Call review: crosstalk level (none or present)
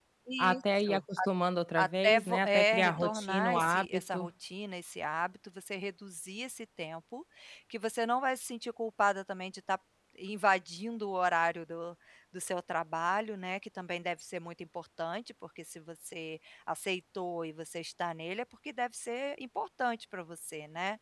present